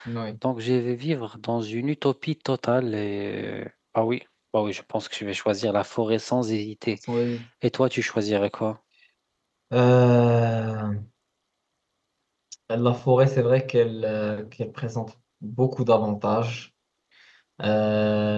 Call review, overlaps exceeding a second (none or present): none